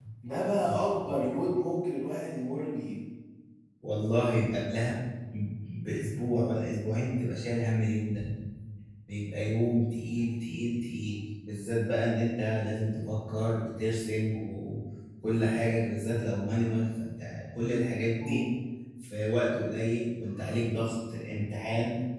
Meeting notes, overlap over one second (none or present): none